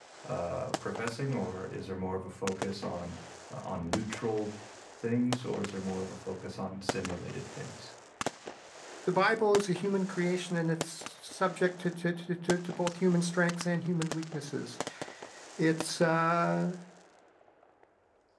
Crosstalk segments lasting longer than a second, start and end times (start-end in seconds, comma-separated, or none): none